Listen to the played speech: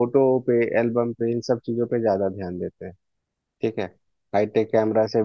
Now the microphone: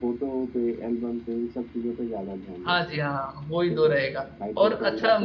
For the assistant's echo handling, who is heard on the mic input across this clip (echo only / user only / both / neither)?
both